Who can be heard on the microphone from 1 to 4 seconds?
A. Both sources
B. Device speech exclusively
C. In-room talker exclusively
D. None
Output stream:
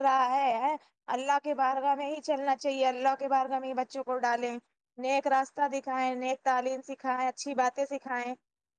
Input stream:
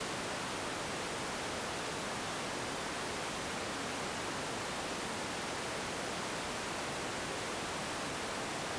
D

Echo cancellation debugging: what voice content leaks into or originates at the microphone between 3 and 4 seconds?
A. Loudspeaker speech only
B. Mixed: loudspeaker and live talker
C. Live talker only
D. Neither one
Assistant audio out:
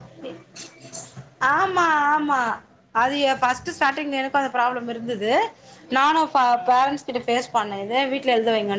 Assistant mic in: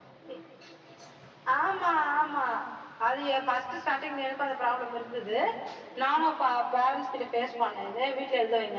A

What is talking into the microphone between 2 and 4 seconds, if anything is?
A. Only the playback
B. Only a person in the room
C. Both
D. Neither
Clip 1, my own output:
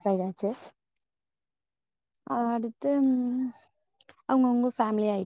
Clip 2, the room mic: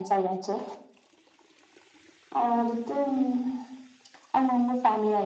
A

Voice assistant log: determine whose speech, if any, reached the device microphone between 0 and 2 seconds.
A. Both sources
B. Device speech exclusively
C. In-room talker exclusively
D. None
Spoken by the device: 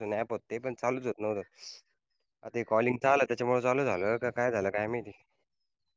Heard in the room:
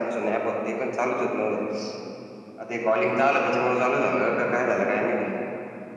B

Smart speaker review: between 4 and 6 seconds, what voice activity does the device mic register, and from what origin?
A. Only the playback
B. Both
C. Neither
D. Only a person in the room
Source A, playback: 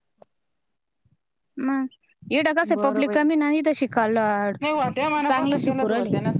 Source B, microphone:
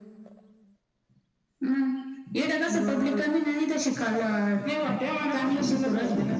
A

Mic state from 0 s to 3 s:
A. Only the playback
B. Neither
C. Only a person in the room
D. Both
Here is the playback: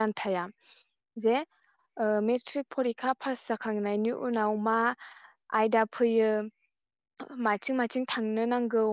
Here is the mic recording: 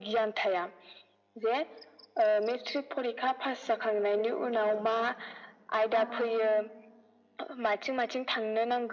A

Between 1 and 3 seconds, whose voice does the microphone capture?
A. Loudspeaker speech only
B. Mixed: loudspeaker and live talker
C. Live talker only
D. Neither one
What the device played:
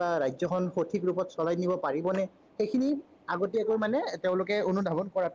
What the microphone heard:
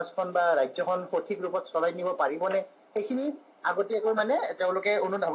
A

